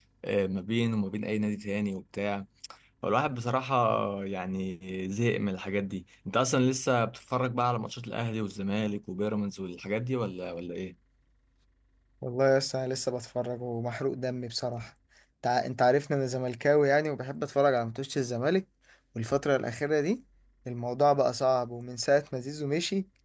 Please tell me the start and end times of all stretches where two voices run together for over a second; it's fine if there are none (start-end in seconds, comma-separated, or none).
none